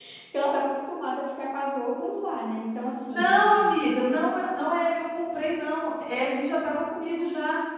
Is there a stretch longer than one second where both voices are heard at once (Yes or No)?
No